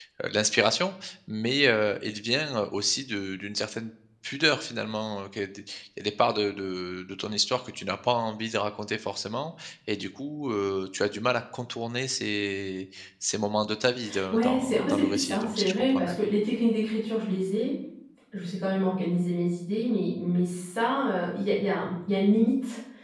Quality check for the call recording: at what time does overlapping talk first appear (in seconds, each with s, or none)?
14.3 s